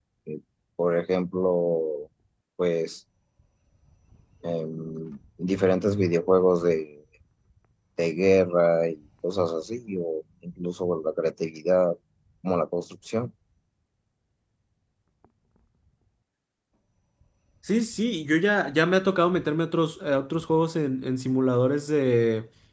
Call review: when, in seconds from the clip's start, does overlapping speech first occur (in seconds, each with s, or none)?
none